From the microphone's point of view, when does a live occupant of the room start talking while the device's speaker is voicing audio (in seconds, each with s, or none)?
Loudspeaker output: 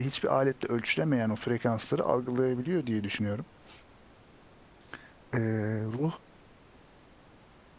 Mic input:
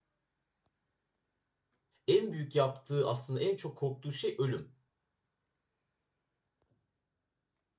2.1 s